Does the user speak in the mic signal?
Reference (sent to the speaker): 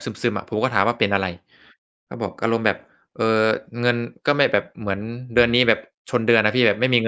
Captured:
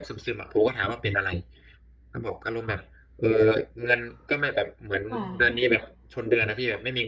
Yes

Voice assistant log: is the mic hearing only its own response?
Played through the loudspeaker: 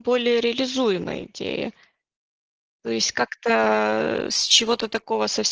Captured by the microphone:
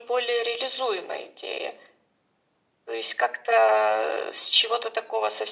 Yes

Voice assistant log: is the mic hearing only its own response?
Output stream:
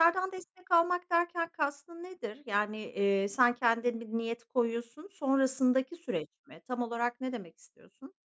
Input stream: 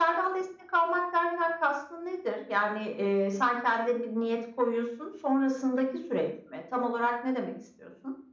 Yes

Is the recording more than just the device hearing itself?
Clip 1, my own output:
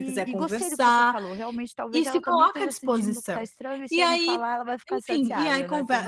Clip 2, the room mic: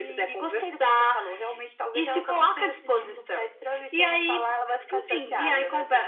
No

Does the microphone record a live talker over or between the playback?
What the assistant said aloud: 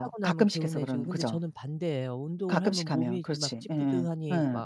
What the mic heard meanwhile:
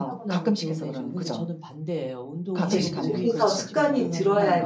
Yes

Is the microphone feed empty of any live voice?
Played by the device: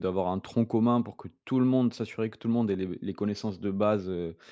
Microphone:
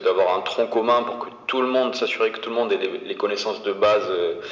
Yes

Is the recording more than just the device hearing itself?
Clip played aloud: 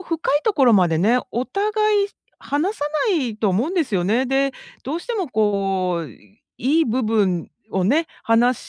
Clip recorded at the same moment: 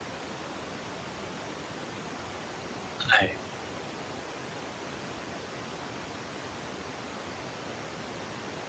Yes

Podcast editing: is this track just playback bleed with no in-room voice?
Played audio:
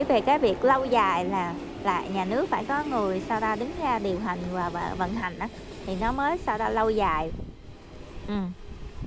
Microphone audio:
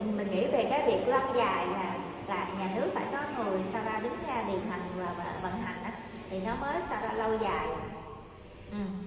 Yes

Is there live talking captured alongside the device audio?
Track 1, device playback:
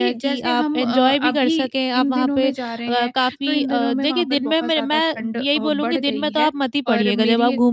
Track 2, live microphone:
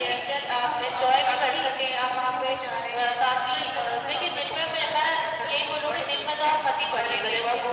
No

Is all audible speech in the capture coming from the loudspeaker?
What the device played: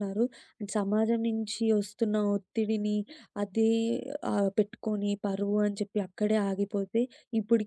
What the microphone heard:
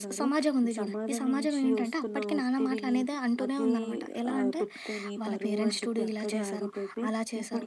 No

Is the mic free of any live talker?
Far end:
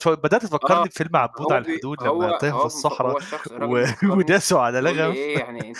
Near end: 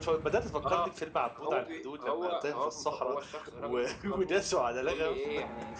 Yes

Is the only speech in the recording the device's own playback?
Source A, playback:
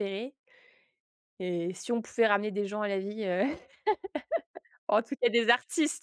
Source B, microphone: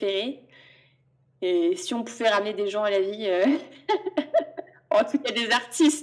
Yes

